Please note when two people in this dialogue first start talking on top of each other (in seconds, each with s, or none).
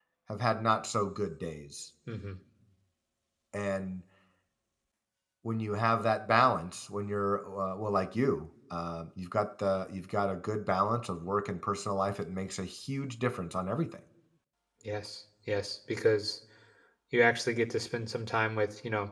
none